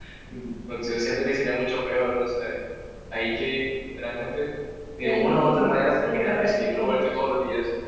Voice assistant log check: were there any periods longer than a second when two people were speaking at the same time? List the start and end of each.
5.0-7.0

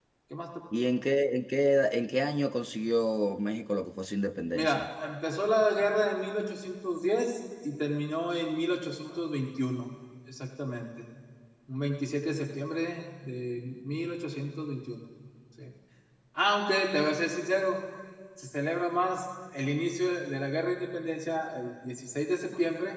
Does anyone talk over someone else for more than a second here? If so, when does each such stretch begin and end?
none

